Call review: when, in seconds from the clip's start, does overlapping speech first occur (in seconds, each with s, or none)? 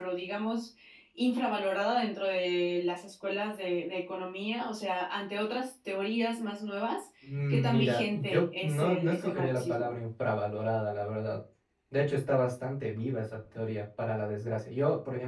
7.7 s